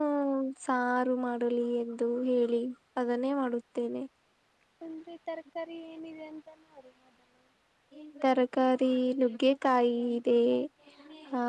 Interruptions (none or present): none